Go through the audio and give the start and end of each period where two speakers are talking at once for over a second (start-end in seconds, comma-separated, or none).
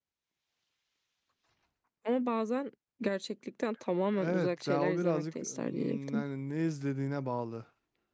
4.2-6.2